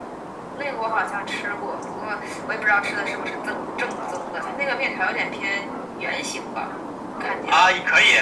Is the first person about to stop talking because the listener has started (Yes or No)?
Yes